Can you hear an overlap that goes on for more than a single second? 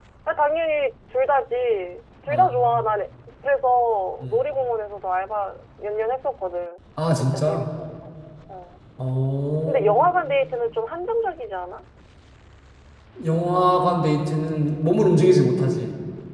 No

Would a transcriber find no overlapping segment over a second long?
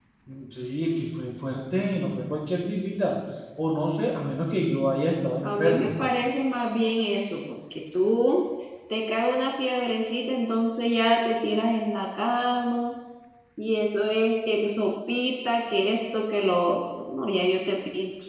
Yes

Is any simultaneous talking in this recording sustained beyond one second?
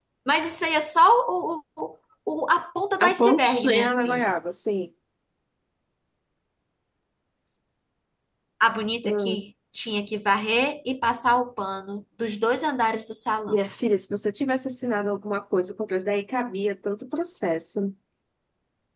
Yes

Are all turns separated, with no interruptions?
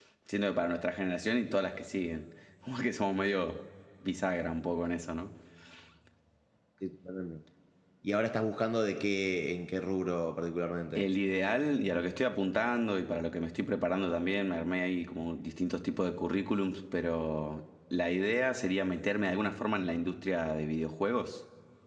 Yes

